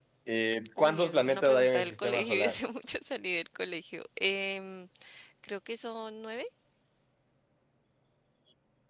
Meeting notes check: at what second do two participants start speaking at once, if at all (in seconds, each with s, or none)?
0.8 s